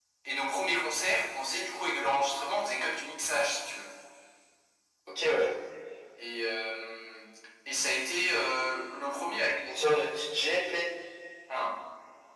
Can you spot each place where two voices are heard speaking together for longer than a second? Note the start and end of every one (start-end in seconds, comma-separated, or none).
none